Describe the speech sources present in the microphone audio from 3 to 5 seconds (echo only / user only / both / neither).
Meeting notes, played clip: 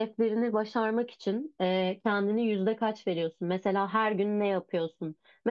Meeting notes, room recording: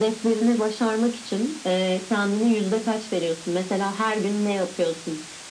echo only